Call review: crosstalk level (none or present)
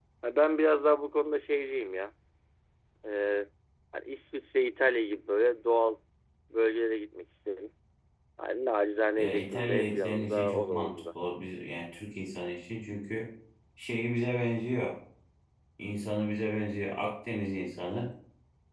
present